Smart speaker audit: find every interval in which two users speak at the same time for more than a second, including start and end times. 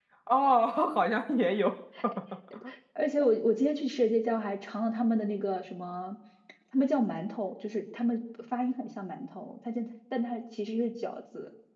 none

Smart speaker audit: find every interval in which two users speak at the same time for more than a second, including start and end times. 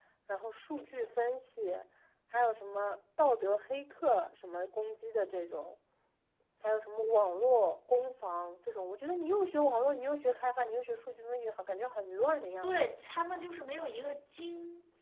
none

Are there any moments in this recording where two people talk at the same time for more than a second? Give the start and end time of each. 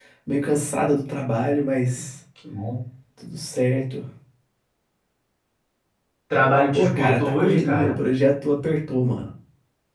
6.7-8.0

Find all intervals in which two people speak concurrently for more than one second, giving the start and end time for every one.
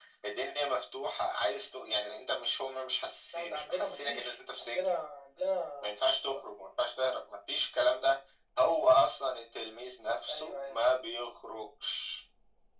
3.3-4.9

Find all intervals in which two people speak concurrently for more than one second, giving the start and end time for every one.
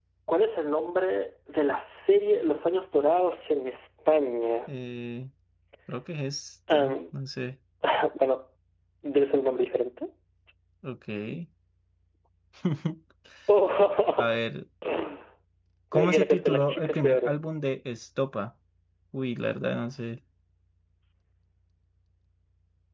16.1-17.3

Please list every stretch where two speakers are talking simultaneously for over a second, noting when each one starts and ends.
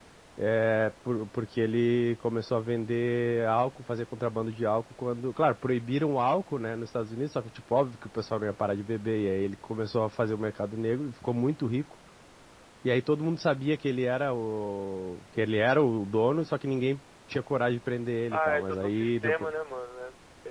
18.3-19.5

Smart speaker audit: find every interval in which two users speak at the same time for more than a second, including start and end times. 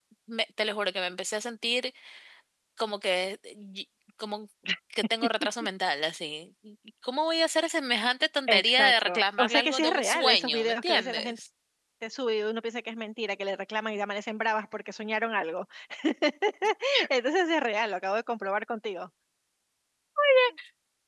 8.5-11.4

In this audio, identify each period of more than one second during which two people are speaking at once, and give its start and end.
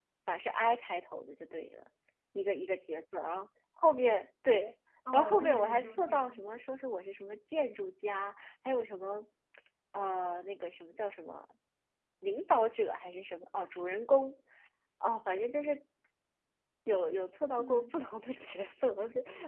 5.1-6.4

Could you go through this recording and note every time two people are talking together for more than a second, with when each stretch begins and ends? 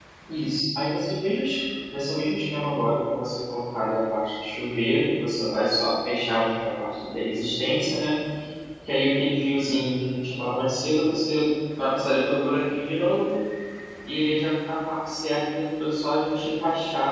none

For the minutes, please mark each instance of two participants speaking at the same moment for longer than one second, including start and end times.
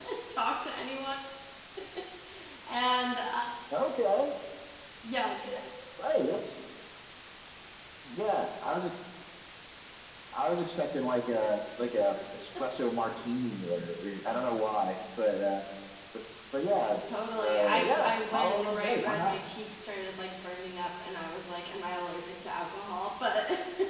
17.4-19.4

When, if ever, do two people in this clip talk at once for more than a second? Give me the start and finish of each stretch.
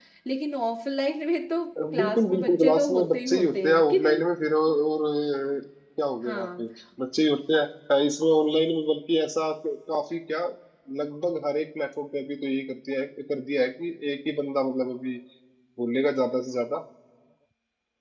2.0-4.2

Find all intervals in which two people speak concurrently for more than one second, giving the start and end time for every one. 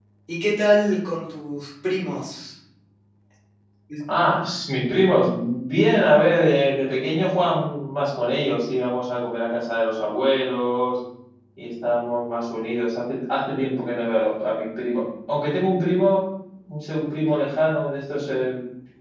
none

